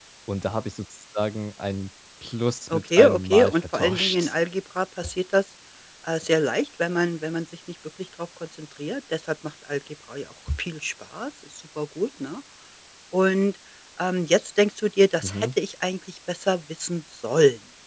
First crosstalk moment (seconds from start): 2.7 s

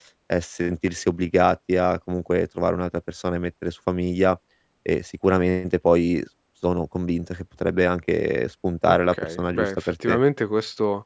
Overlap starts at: 8.9 s

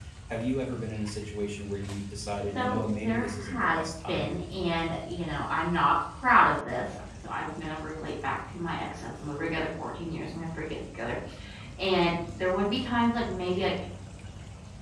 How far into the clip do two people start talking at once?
2.5 s

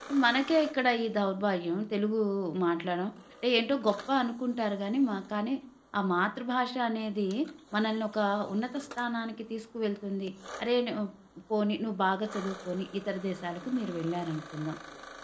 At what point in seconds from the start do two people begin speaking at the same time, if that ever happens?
none

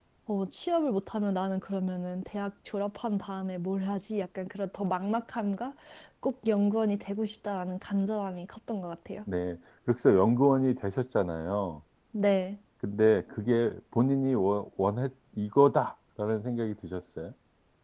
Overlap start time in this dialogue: none

